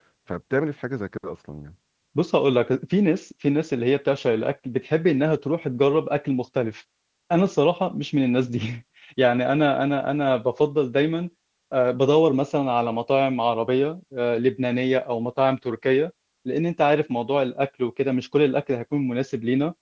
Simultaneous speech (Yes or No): No